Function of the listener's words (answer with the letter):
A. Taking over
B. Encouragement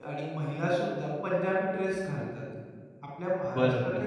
B